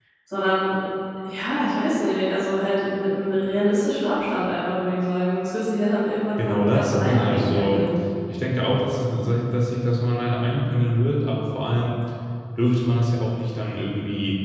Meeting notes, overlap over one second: present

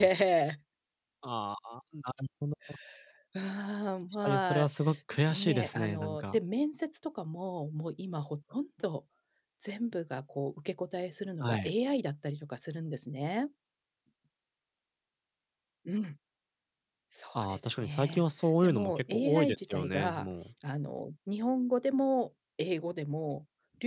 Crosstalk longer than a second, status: present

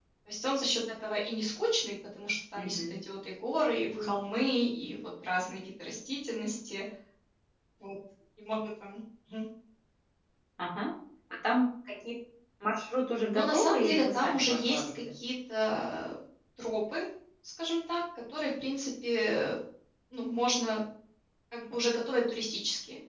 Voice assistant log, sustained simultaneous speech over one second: present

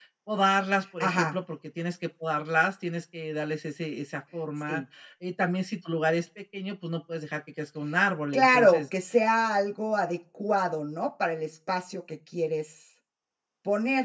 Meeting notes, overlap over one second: none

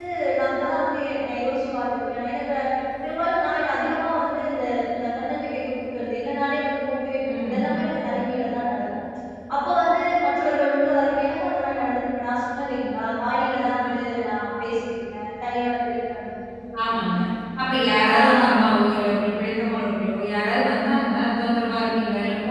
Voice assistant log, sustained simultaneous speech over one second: none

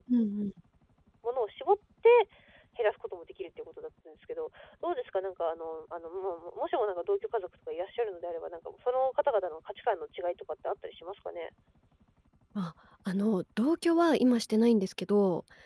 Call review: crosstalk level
none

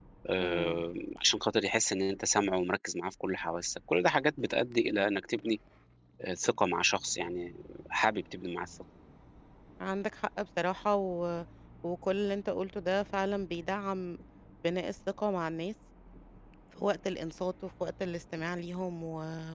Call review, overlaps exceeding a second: none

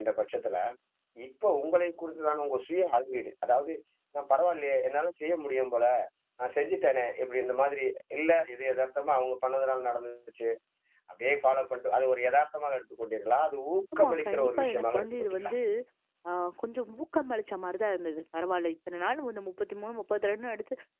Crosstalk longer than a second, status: present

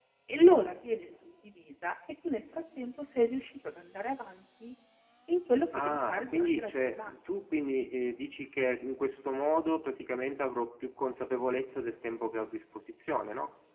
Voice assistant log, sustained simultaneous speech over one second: present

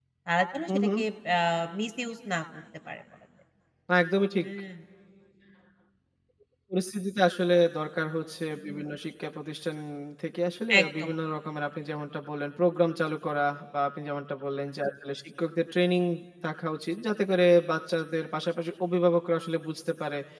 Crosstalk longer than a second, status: none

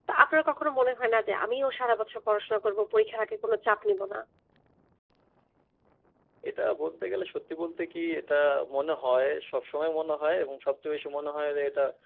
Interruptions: none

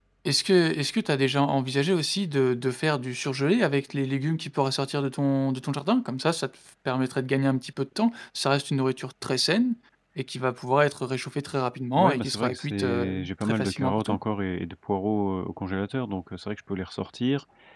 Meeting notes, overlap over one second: present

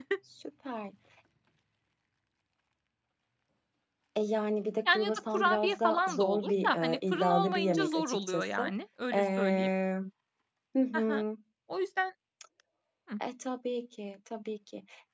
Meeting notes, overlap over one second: present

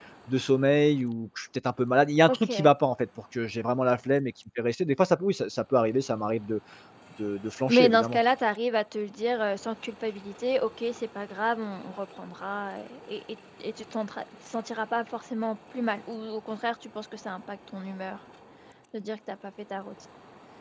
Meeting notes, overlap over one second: none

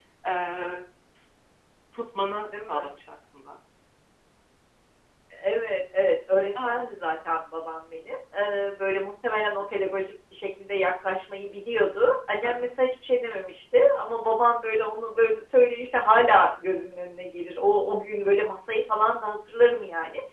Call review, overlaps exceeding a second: none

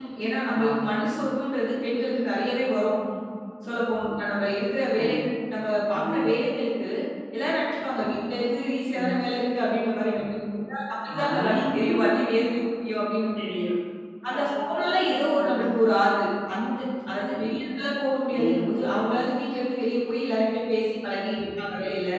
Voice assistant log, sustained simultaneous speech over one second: present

